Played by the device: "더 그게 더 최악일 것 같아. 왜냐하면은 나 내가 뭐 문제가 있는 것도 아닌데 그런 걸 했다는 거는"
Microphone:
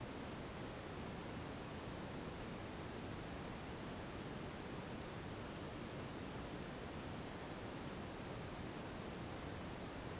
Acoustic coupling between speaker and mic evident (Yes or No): No